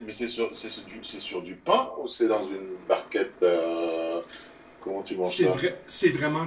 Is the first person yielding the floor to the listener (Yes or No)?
Yes